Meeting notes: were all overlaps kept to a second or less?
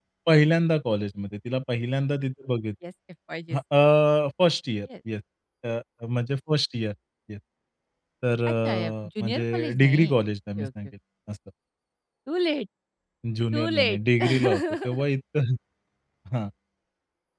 No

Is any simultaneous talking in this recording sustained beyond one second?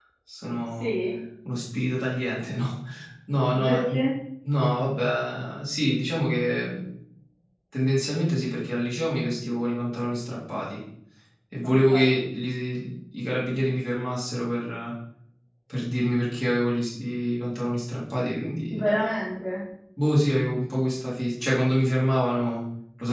No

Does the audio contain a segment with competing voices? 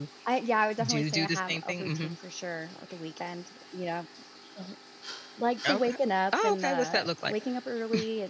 Yes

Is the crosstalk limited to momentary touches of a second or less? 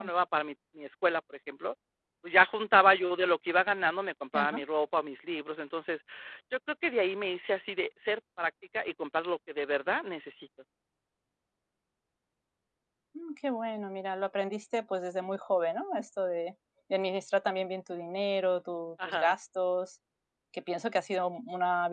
Yes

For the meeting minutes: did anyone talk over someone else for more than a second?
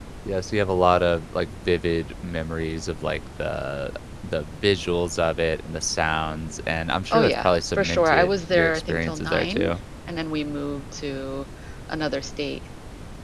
Yes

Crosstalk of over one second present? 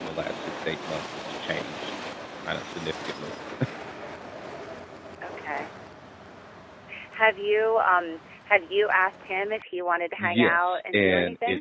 Yes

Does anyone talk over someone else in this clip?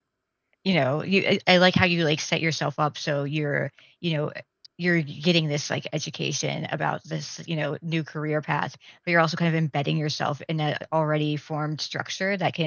No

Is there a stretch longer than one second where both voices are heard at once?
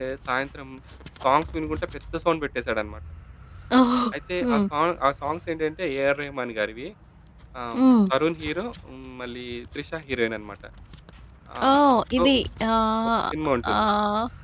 No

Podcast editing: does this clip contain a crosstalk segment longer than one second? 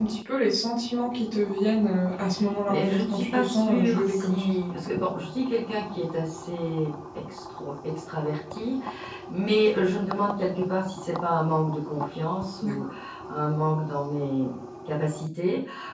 Yes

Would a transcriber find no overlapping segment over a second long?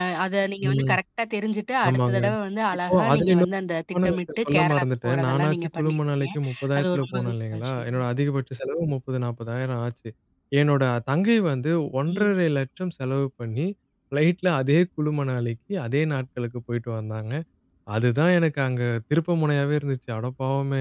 No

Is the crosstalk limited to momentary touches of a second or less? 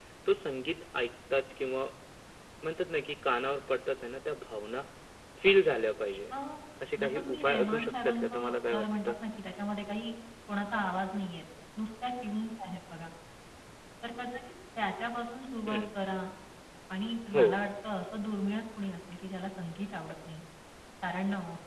No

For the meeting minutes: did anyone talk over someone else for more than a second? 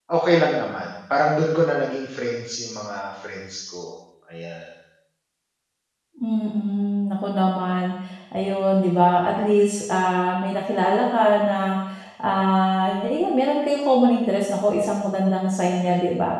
No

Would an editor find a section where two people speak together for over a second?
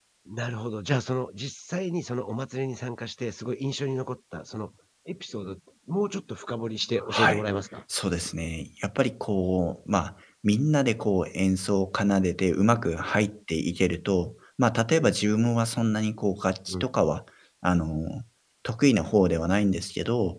No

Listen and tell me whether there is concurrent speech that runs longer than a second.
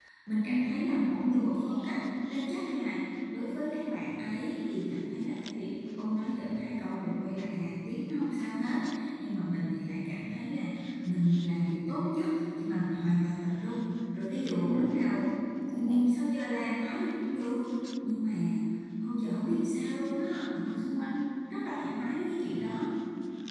Yes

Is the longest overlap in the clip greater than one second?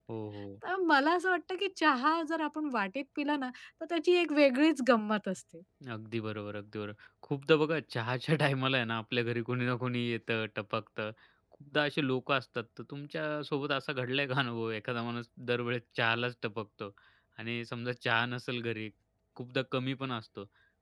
No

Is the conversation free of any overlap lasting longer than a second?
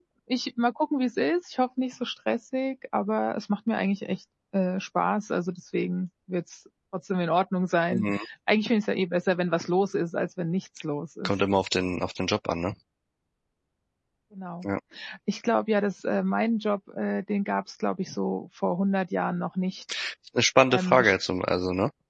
Yes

